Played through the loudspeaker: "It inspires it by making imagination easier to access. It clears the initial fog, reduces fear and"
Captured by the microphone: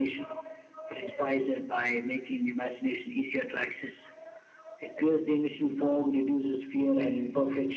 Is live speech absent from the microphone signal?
Yes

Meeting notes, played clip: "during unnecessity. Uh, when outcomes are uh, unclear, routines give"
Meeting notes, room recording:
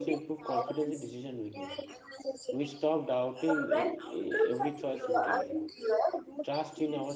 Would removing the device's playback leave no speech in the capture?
No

